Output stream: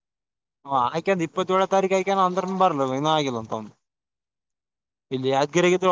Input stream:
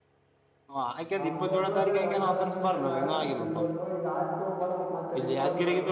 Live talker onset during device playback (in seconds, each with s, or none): 1.2 s